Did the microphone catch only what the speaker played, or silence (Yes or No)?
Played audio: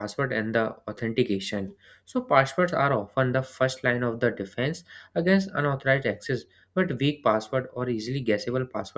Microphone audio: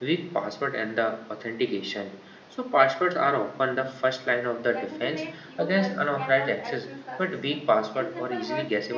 No